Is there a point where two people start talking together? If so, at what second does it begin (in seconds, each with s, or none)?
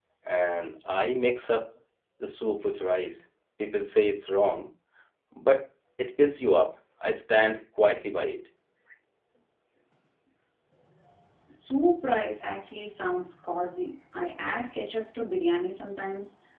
none